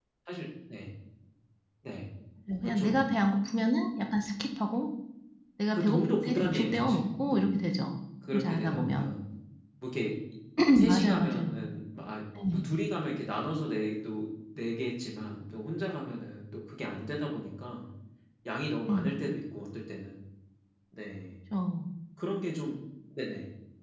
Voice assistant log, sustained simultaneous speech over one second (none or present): present